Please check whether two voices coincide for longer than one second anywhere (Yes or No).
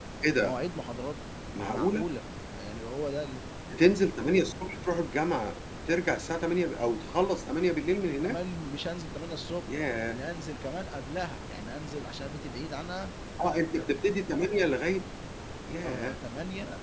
No